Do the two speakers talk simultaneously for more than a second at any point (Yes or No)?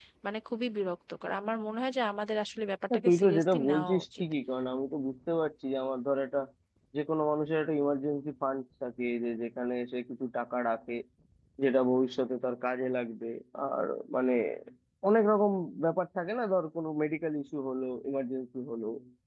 Yes